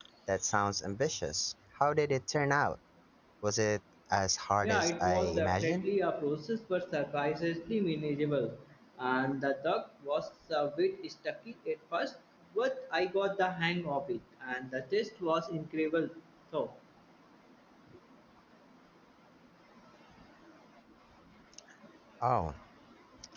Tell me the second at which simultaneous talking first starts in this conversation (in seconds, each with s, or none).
4.6 s